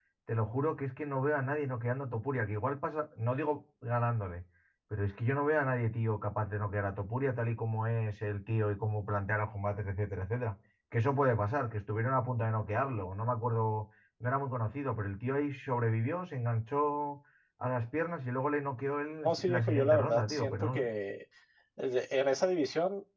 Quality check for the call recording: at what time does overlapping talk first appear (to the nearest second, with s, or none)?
19 s